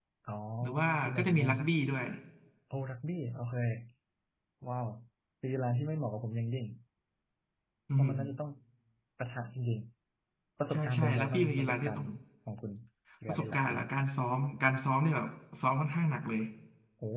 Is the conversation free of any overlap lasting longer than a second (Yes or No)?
No